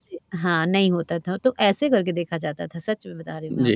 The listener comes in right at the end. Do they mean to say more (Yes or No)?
Yes